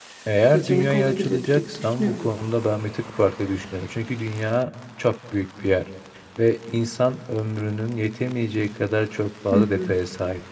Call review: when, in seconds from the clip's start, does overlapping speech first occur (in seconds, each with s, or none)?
0.5 s